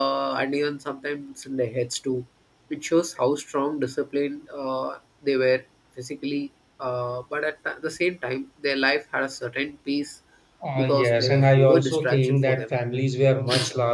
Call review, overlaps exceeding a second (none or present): present